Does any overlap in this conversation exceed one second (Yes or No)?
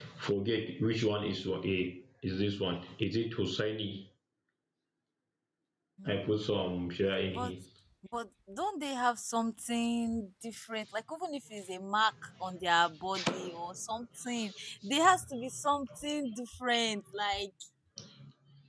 No